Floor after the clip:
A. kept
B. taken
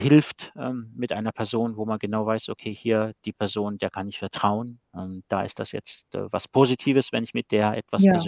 A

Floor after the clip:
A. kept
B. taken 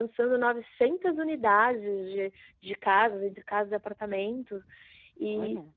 A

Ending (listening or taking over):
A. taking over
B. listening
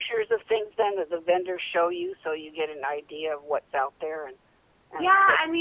A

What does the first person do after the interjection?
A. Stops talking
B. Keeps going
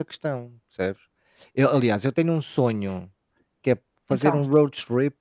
B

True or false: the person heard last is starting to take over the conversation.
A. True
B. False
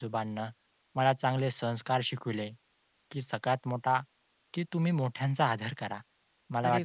B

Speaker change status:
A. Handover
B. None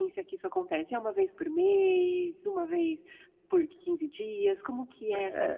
A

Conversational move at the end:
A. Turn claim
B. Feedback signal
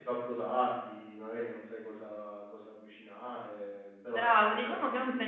A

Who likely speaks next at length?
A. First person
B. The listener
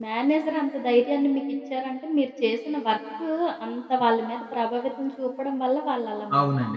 B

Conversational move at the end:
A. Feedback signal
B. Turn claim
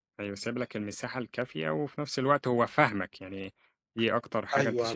B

